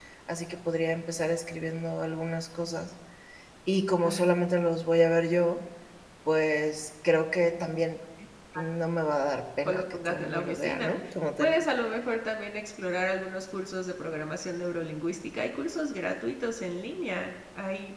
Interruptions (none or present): present